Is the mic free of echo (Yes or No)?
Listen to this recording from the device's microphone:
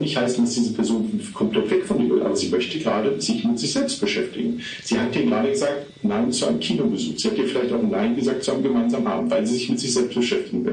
No